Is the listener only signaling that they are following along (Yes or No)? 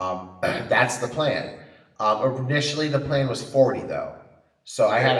Yes